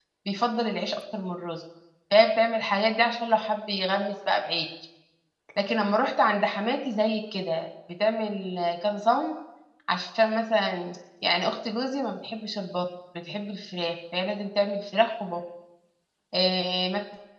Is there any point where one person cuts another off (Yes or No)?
No